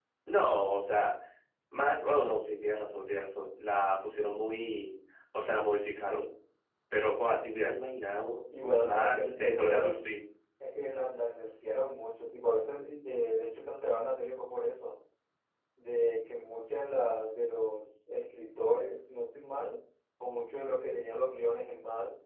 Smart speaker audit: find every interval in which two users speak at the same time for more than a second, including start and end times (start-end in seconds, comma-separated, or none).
8.6-10.0